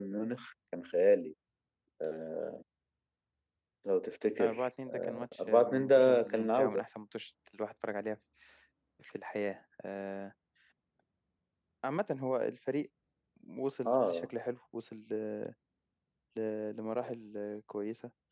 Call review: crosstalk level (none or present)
present